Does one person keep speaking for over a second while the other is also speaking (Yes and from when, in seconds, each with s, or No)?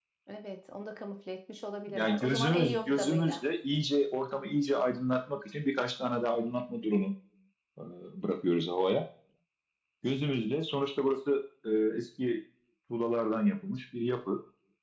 Yes, from 1.9 s